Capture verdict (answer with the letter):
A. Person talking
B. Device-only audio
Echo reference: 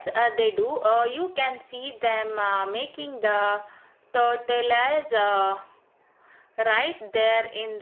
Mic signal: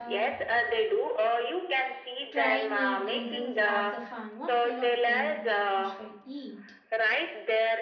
A